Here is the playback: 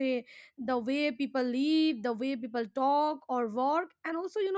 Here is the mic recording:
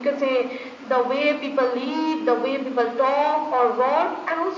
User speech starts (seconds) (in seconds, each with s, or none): none